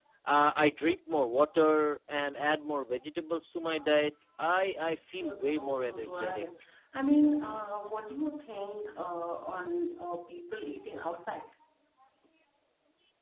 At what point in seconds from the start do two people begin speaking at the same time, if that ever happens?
5.1 s

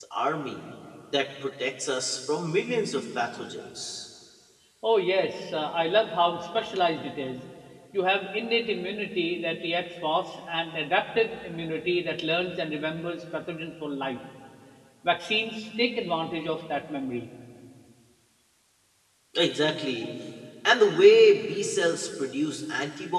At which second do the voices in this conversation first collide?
none

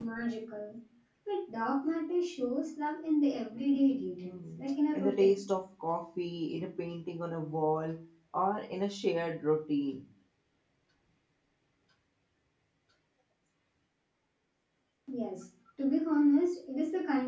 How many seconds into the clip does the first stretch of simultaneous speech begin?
4.0 s

